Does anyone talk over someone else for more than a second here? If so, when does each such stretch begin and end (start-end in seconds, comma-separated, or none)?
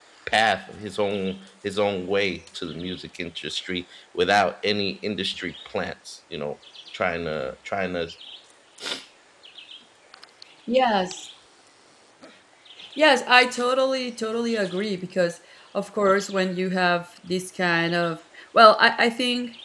none